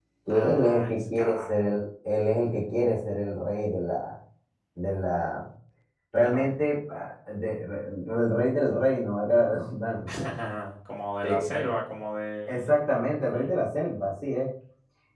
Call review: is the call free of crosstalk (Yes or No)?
No